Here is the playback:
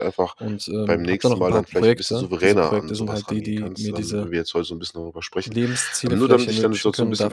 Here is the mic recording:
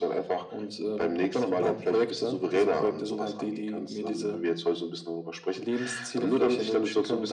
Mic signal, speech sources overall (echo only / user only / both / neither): echo only